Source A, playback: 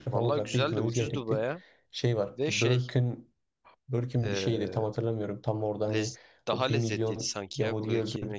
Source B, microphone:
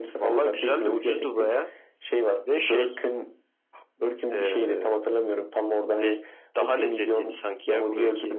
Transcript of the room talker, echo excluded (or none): none